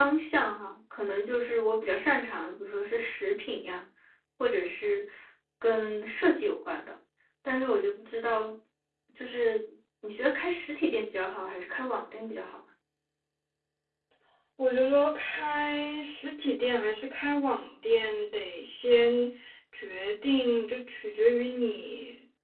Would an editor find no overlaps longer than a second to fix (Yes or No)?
Yes